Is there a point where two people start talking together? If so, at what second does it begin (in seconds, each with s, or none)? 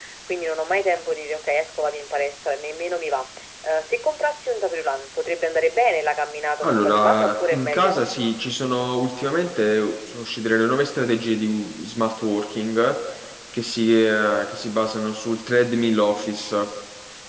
6.6 s